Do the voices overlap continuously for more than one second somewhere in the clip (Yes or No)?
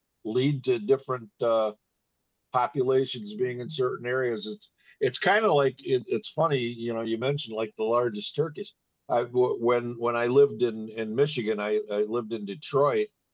No